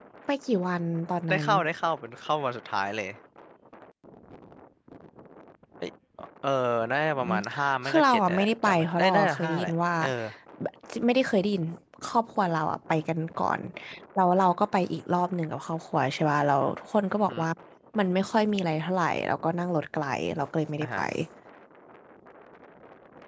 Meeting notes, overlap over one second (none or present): present